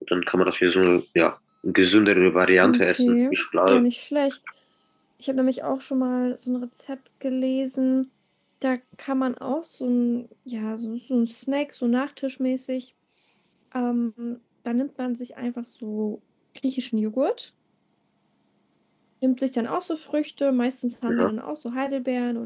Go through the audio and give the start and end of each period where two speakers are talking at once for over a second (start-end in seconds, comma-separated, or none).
2.6-3.8